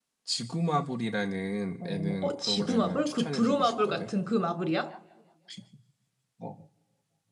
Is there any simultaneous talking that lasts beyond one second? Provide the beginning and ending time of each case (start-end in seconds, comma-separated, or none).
1.8-4.1